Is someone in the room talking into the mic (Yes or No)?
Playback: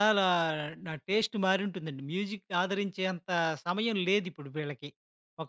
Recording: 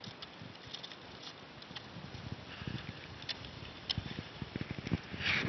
No